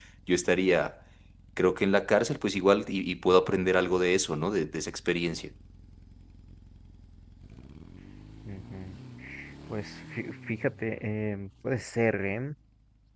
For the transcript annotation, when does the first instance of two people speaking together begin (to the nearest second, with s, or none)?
none